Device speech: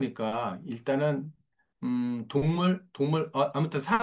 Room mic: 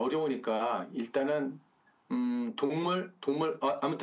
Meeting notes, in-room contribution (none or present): none